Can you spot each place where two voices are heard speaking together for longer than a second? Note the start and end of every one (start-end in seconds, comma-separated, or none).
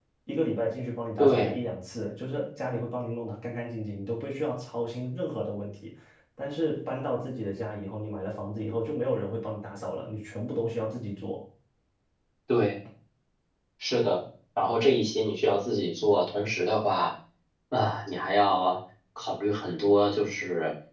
none